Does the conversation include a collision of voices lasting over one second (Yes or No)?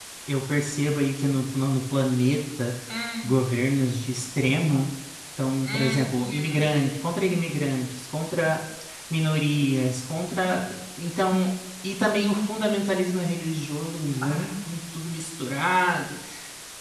Yes